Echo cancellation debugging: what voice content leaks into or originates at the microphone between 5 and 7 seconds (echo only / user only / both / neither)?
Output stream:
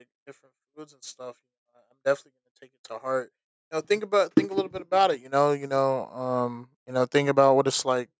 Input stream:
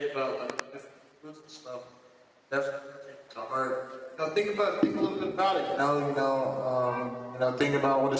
echo only